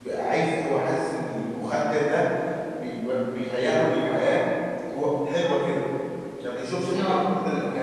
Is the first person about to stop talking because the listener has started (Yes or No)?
No